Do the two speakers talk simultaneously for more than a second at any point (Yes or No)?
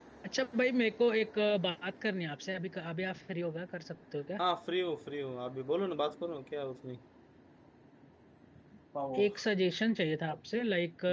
No